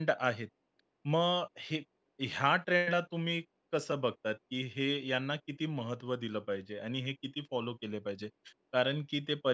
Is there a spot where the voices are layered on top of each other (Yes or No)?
No